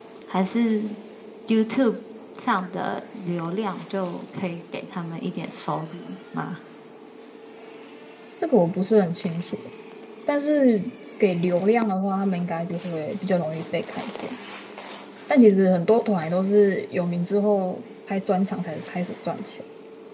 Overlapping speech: No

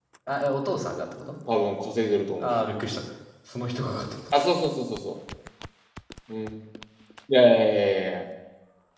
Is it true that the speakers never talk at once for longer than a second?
Yes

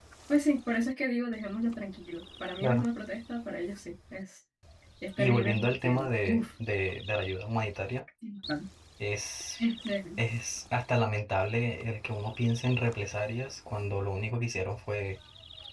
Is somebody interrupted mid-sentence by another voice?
Yes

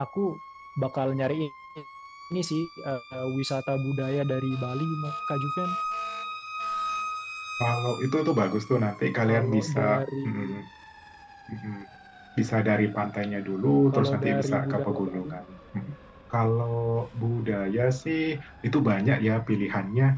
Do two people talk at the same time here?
Yes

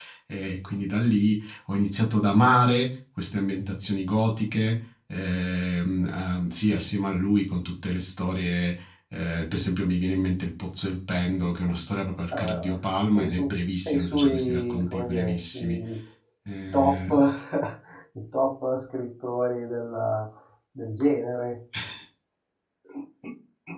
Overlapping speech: Yes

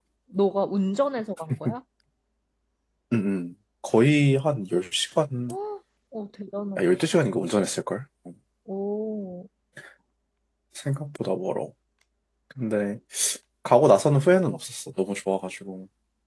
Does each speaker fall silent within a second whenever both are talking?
Yes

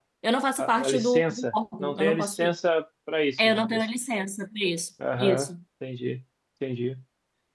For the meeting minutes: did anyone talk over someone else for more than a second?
Yes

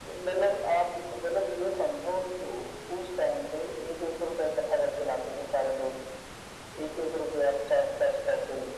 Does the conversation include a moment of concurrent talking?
No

